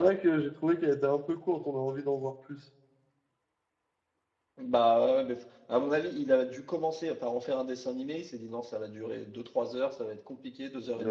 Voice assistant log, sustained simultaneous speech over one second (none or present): none